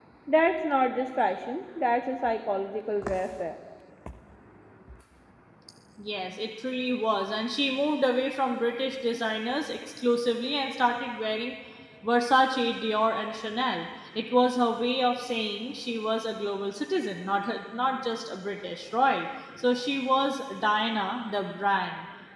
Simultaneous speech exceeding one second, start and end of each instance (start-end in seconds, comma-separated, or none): none